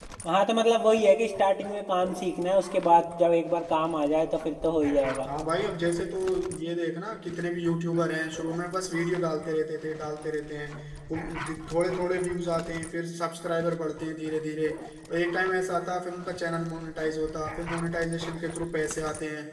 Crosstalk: none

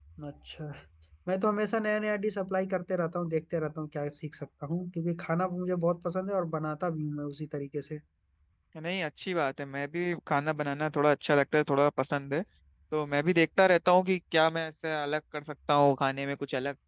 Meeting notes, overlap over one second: none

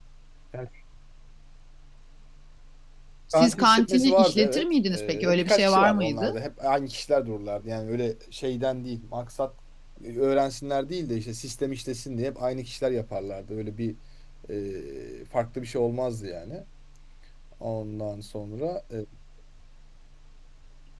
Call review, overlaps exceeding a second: present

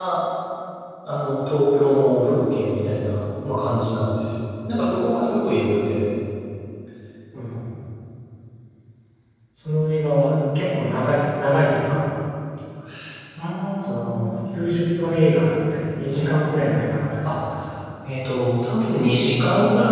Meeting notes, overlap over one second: none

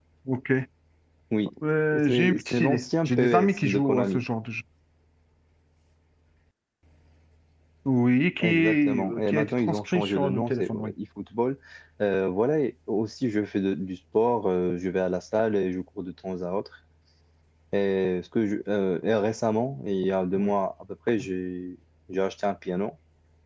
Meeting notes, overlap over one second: present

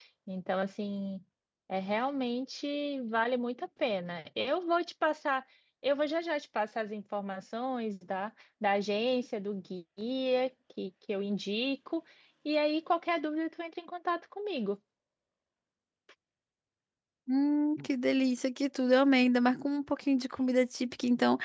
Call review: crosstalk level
none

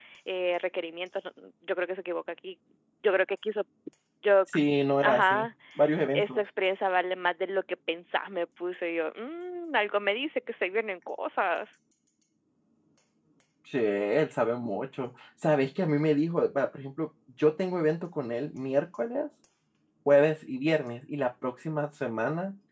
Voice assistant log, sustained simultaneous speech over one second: none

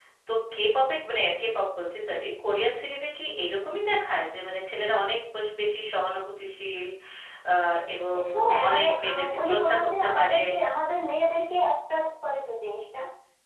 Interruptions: present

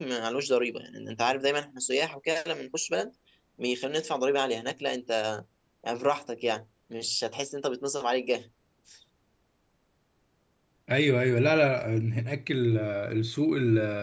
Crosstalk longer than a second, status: none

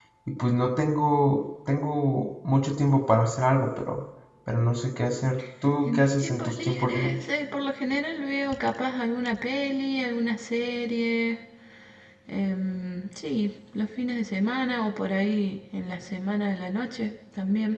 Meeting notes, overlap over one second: present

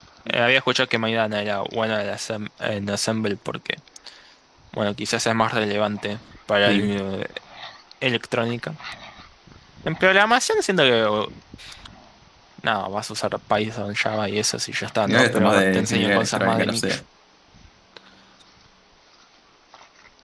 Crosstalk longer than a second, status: present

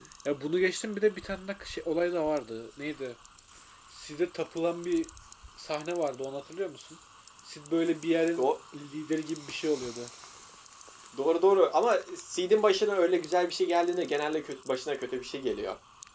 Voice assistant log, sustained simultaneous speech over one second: none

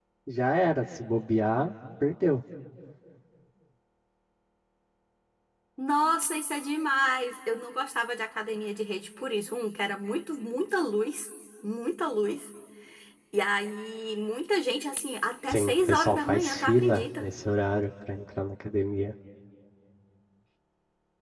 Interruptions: present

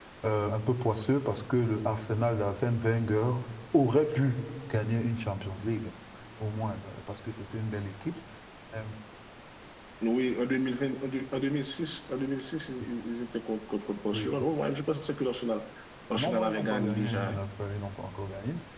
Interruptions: present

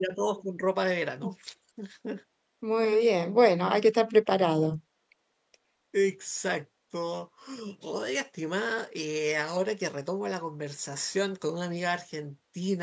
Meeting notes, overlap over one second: none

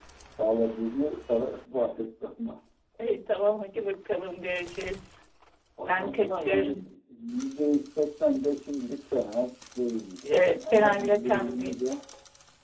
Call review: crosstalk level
present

